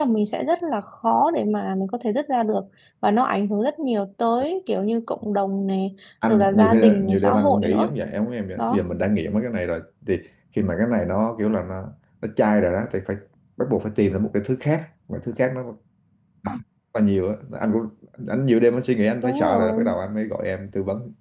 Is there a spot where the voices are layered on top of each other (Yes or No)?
Yes